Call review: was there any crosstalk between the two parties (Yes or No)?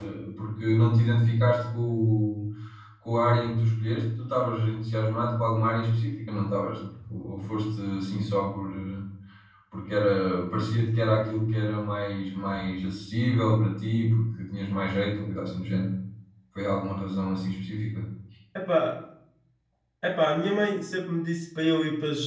No